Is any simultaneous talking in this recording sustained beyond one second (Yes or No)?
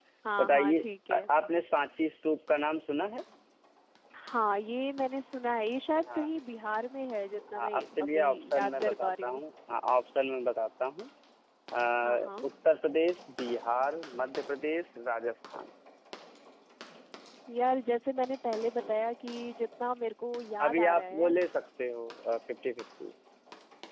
Yes